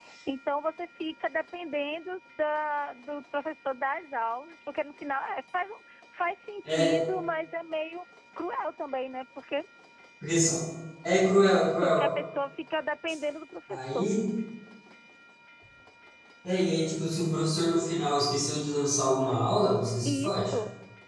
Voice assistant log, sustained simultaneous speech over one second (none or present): none